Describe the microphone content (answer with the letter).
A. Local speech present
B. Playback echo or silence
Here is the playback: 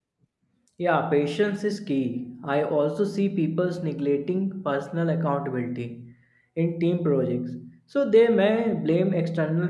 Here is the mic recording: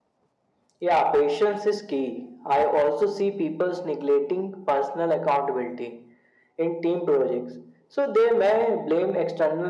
B